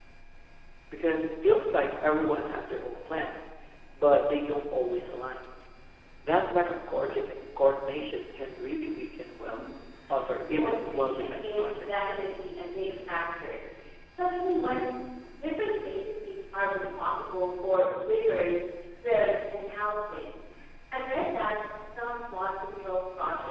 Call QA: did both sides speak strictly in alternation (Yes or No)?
No